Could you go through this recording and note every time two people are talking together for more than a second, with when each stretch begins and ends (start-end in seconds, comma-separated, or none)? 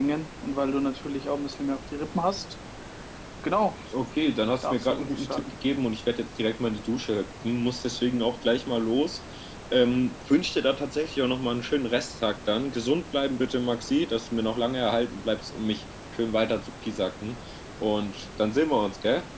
4.2-5.5